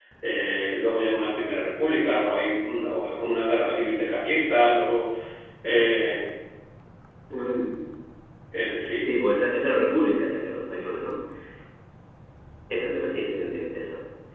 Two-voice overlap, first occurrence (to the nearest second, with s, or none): none